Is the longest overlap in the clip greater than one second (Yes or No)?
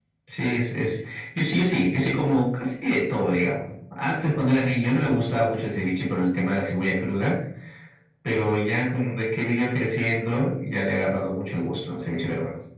No